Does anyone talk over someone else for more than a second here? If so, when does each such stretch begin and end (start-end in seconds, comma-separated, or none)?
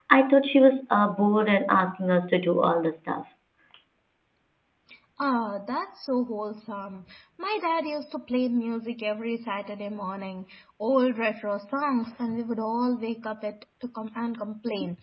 none